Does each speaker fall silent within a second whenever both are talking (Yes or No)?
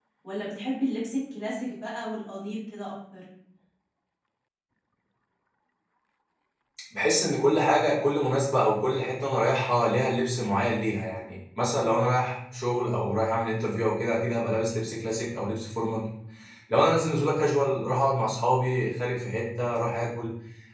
Yes